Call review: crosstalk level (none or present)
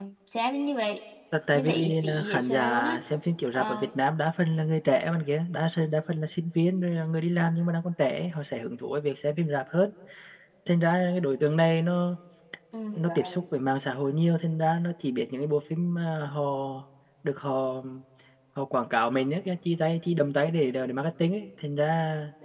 present